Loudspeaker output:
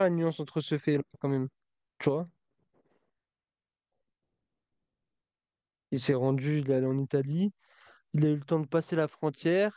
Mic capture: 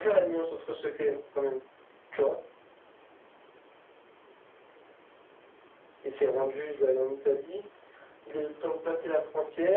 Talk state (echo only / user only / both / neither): echo only